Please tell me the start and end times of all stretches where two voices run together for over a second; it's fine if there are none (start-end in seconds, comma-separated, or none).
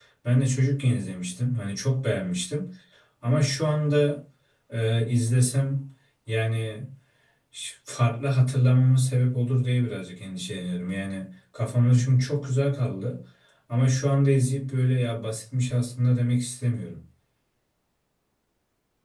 none